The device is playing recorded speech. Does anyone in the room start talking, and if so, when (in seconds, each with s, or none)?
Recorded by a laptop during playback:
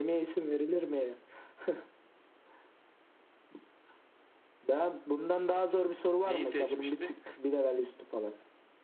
6.2 s